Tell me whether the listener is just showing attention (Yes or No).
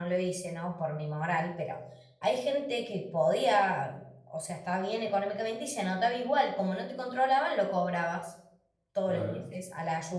Yes